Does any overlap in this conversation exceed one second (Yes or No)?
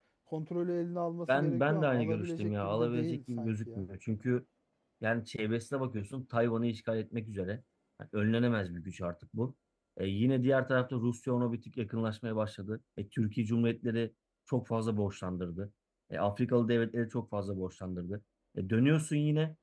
Yes